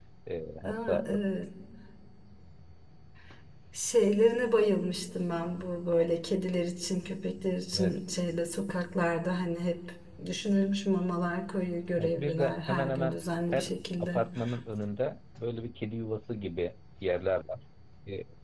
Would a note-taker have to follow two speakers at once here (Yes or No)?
Yes